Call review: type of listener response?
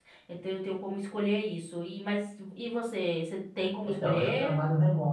taking over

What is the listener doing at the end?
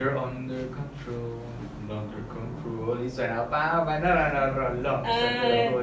listening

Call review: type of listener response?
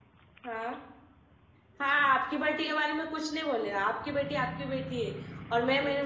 taking over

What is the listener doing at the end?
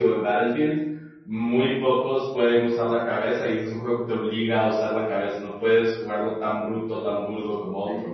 taking over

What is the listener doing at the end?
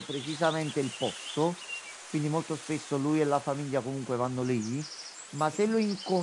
listening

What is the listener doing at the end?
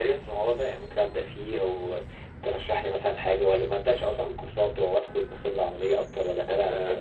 taking over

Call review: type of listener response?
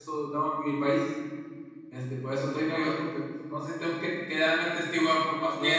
taking over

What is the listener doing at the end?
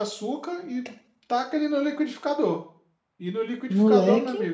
listening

